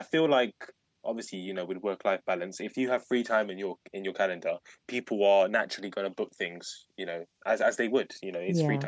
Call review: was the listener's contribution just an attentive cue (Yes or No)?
Yes